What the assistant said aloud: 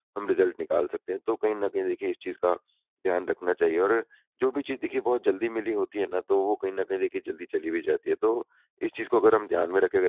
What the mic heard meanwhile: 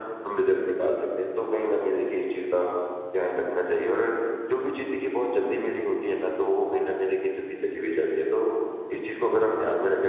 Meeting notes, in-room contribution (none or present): none